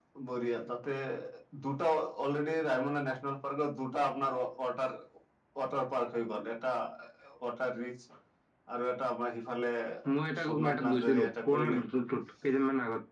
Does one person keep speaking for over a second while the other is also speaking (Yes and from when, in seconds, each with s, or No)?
Yes, from 10.4 s